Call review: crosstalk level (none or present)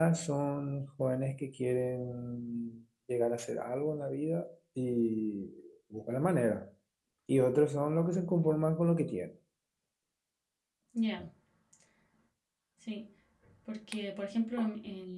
none